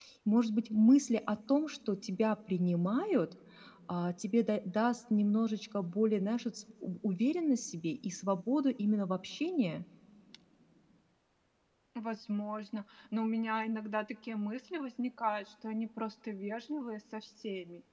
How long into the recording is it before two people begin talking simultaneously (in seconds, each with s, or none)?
none